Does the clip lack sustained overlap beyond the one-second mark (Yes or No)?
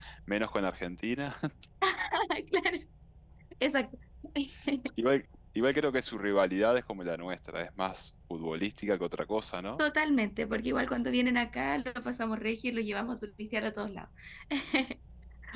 Yes